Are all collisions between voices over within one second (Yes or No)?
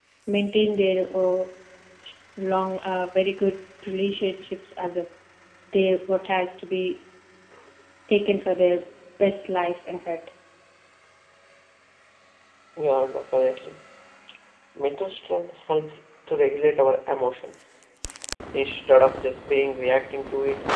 Yes